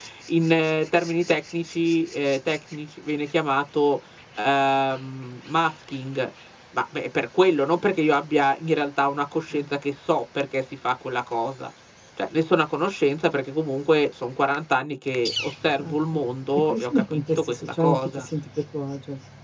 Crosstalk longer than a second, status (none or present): present